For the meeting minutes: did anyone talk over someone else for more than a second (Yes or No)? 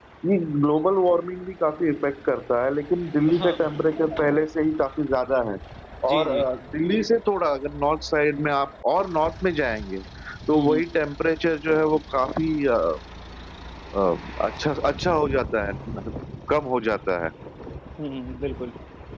No